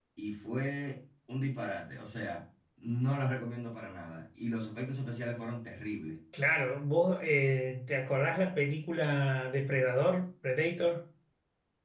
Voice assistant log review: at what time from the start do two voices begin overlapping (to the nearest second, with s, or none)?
none